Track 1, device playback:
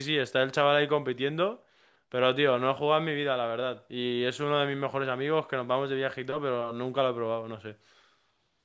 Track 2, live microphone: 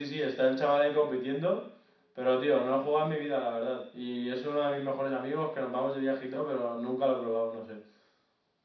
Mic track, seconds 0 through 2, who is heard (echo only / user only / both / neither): echo only